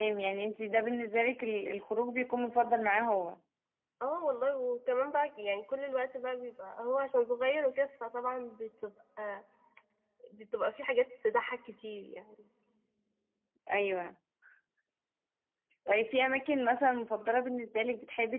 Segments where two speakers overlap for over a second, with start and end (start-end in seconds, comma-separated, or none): none